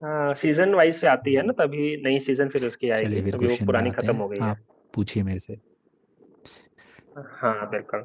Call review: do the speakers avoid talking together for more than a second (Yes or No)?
No